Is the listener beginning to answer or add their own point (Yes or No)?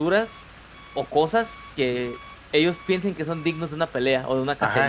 Yes